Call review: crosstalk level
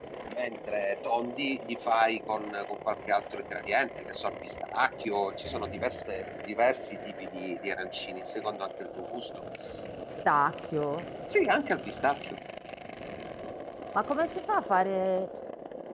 none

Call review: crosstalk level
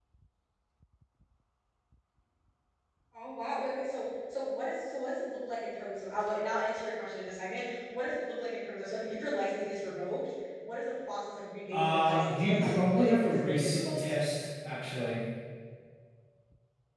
present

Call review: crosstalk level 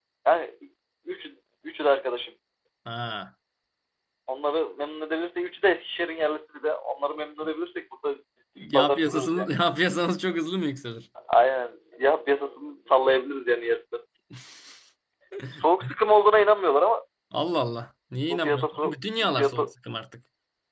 present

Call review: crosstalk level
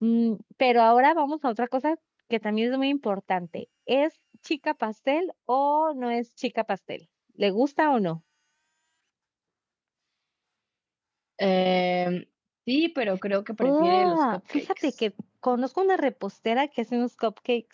present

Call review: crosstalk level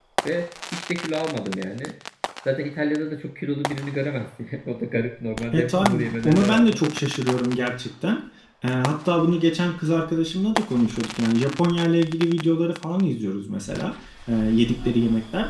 present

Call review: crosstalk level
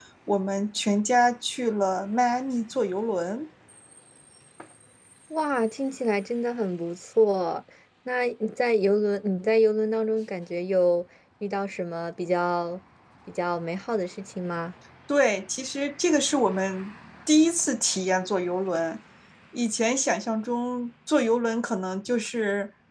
none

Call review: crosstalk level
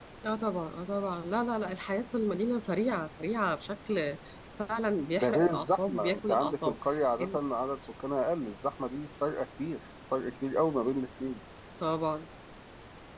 present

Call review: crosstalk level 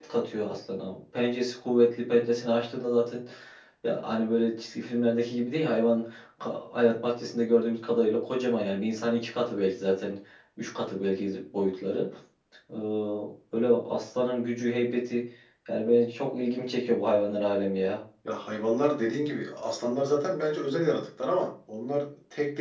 none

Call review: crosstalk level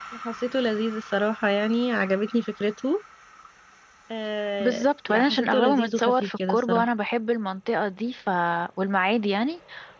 present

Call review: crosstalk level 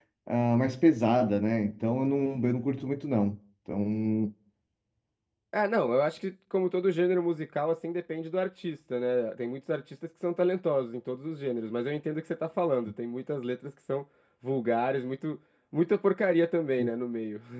none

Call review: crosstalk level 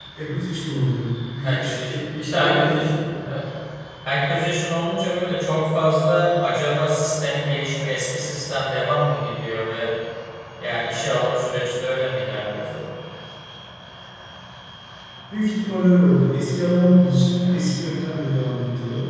present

